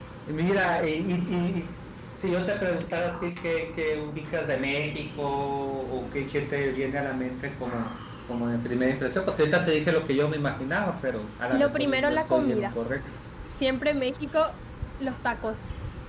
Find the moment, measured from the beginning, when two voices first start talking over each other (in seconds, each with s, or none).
11.5 s